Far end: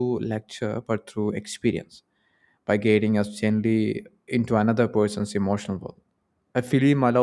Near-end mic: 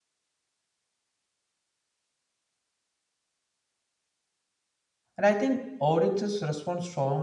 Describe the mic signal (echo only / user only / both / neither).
user only